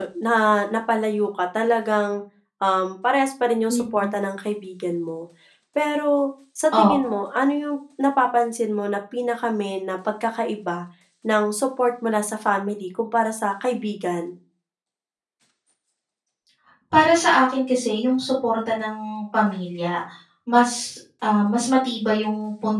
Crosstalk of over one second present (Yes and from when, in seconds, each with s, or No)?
No